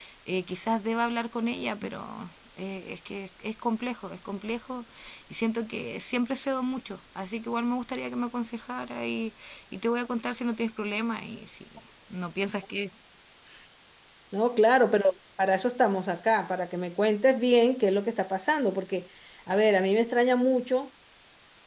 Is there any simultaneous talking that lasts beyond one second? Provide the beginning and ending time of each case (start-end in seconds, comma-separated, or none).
none